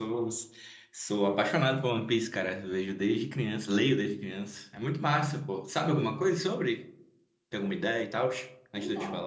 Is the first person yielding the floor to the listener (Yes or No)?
Yes